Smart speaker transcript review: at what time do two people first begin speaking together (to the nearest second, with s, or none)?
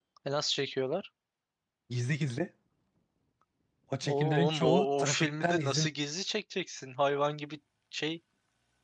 4 s